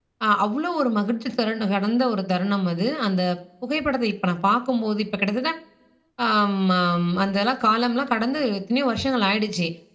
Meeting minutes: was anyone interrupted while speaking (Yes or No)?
No